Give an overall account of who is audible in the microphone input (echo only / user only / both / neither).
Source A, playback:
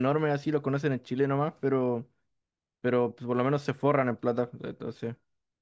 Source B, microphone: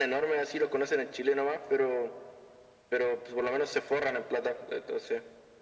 echo only